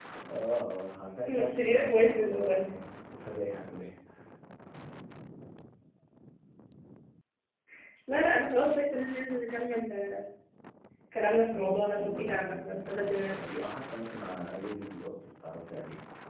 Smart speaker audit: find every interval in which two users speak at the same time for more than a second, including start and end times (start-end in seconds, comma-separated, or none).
1.2-2.7, 11.5-13.7